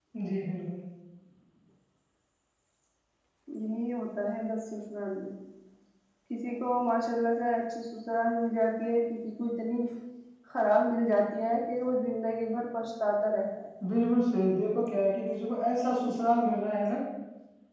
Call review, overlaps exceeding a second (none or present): none